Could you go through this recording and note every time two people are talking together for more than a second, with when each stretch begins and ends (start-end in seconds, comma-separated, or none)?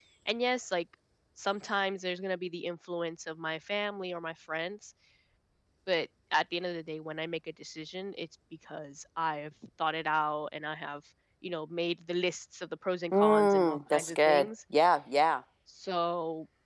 13.1-14.5